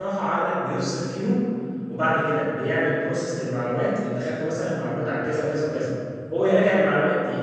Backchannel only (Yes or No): Yes